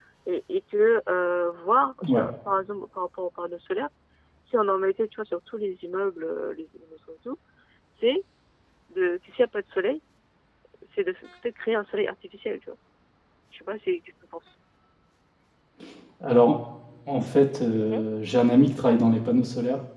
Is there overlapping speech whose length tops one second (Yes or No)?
No